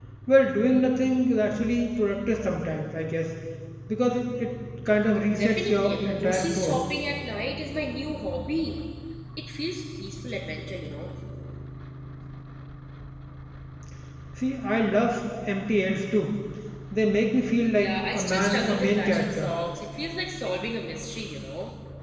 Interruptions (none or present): present